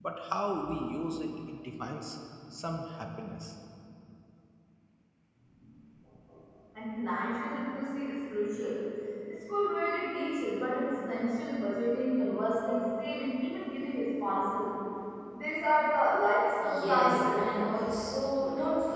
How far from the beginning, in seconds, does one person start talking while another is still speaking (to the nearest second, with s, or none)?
17 s